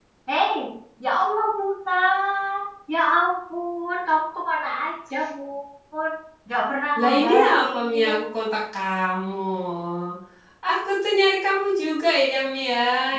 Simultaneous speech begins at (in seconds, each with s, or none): 7.0 s